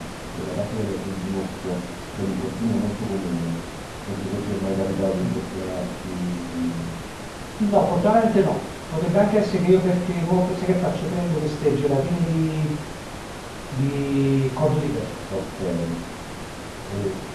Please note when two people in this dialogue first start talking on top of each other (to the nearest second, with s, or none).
none